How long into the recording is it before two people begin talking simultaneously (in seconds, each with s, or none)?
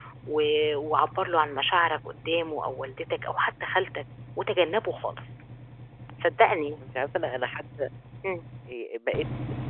none